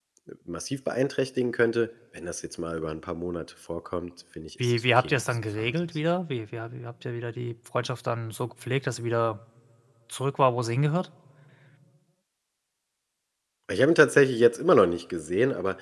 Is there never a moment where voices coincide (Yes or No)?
No